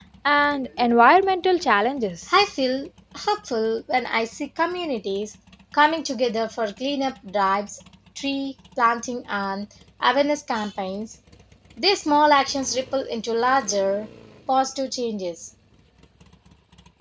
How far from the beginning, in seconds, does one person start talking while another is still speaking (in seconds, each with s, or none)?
none